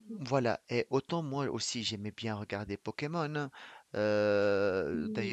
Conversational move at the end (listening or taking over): listening